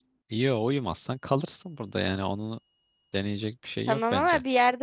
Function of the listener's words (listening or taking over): taking over